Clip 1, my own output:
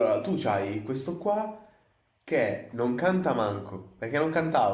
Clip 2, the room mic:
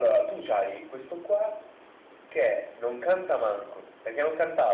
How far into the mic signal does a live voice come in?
none

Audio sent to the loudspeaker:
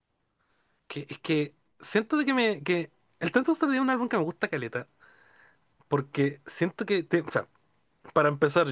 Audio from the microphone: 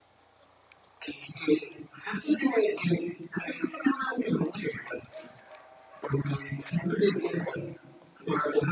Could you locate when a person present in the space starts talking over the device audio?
none

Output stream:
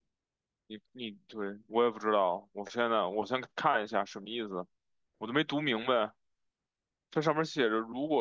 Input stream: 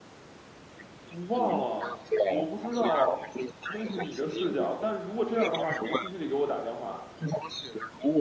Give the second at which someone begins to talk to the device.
1.1 s

